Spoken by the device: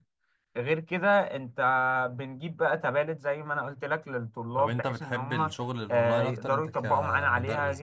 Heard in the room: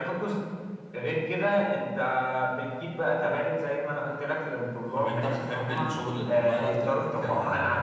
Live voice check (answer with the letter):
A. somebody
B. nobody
B